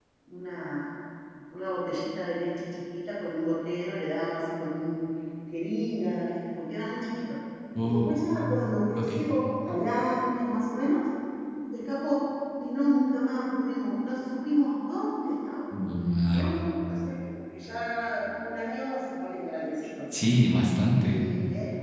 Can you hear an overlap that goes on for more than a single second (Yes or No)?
No